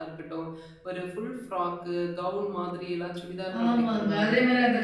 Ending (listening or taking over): taking over